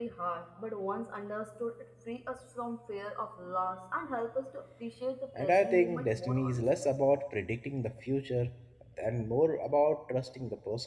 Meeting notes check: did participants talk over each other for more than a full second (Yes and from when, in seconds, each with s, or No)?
Yes, from 5.3 s